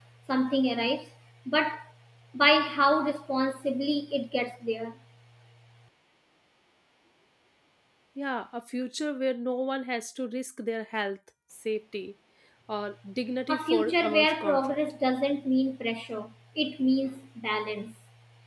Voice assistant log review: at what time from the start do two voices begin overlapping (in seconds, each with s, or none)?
13.5 s